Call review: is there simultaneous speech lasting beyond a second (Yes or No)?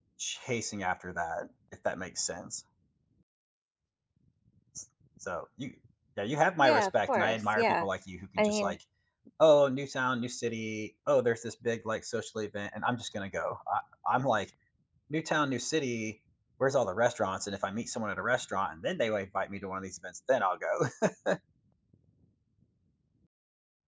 Yes